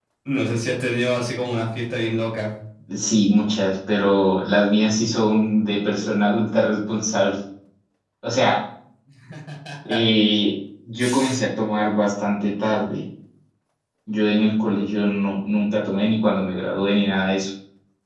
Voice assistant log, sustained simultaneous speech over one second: none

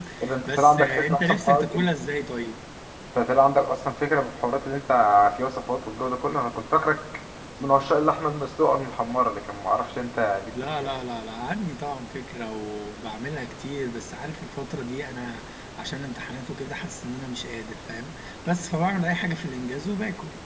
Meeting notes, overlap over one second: present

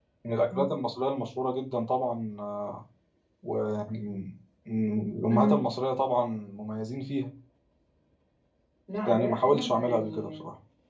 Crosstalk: present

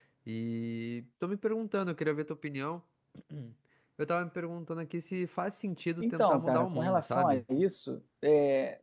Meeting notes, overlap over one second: present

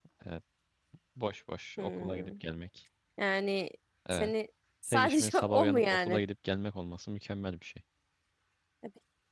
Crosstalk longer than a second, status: present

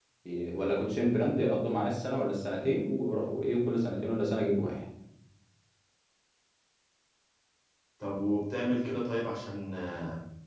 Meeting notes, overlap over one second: none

